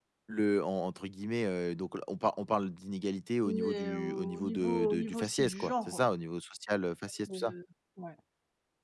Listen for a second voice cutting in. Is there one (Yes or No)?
Yes